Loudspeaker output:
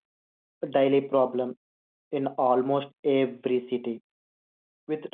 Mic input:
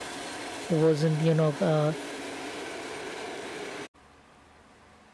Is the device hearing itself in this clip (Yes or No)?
No